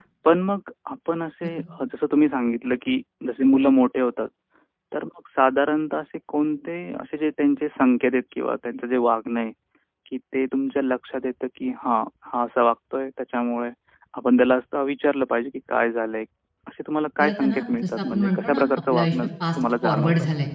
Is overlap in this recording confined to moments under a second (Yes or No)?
No